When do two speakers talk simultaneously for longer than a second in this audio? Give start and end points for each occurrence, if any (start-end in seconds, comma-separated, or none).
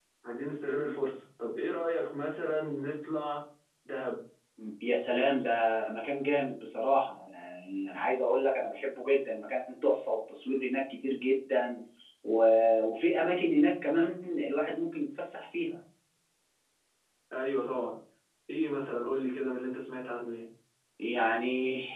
none